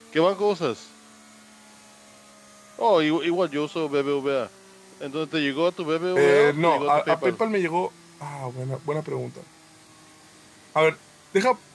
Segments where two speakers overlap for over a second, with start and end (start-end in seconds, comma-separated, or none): 6.2-7.4